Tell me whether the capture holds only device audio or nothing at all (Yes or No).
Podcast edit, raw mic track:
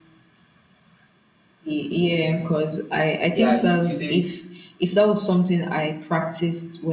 No